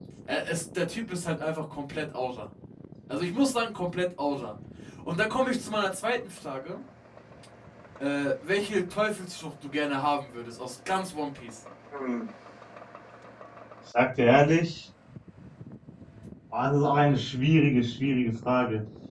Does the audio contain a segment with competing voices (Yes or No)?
No